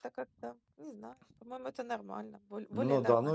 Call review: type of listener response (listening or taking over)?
taking over